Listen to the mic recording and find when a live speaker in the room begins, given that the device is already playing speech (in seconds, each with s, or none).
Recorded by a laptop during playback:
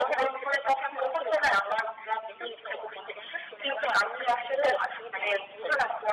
none